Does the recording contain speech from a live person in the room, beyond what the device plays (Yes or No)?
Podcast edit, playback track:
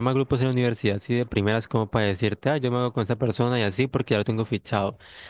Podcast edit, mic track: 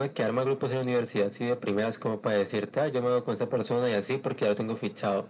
No